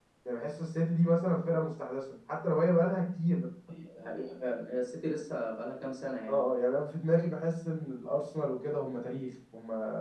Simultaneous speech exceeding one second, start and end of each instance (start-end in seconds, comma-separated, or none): none